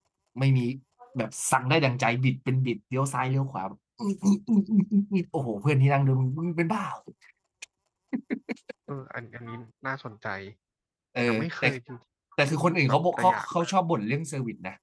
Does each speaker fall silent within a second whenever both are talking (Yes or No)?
No